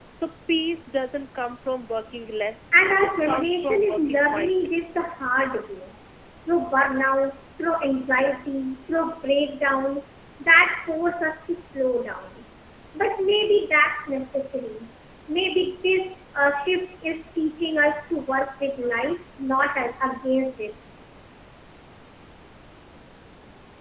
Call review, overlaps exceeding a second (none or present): present